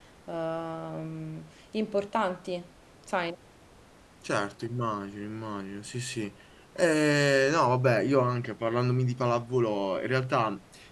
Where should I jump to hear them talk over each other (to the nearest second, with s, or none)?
none